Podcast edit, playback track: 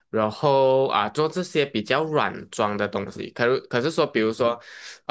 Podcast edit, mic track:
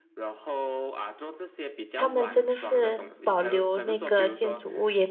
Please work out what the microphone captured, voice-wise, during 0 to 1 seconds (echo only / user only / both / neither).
echo only